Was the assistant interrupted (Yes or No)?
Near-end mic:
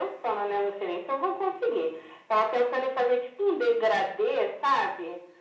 No